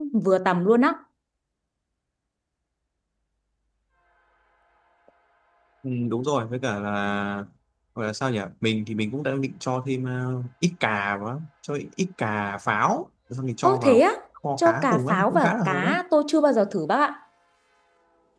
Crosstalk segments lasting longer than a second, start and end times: 14.6-15.9

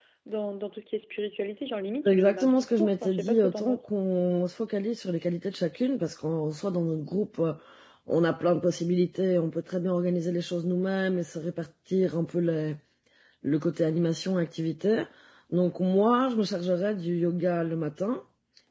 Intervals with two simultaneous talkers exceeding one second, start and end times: 2.0-3.9

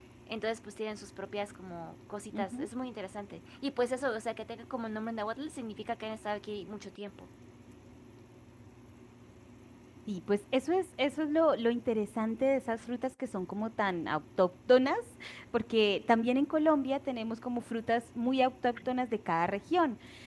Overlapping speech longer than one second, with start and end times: none

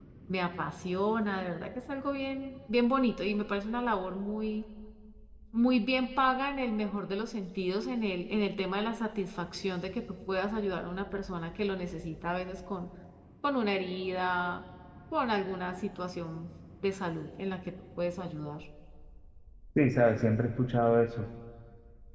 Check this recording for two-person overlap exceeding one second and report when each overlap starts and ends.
none

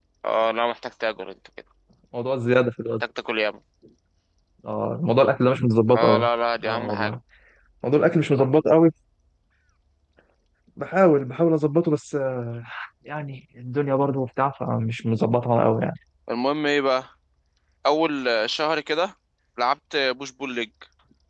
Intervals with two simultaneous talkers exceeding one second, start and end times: none

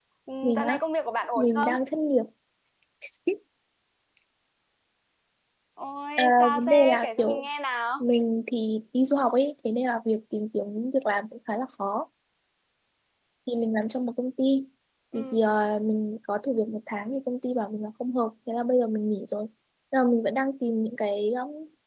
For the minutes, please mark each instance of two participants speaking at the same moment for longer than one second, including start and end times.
6.2-7.4

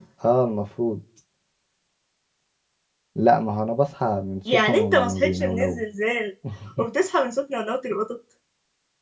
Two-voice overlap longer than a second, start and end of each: 4.5-5.8

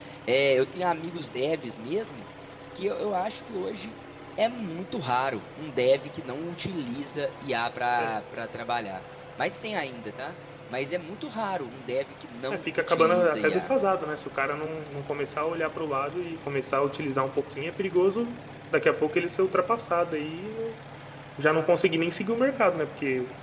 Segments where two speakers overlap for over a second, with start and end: 12.5-13.7

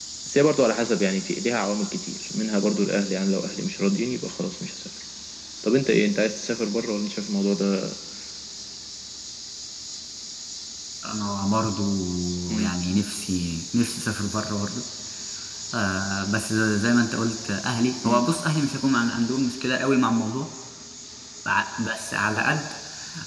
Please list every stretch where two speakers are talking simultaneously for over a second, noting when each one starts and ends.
none

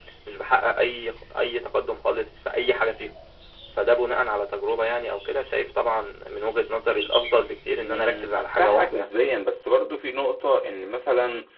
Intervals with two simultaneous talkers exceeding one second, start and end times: 7.8-9.1

